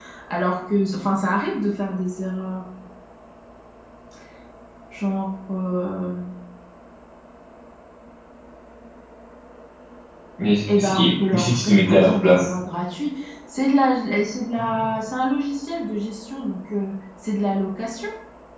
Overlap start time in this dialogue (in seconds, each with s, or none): 10.8 s